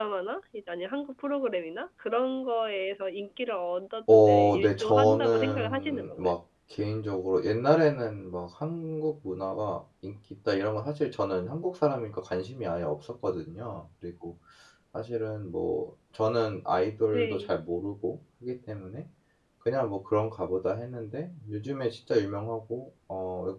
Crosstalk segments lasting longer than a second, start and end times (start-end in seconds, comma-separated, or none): 4.1-6.3